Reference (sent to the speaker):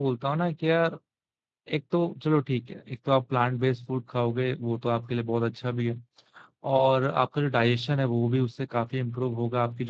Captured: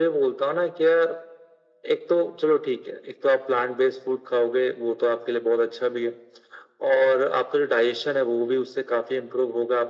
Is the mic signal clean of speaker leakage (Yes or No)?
No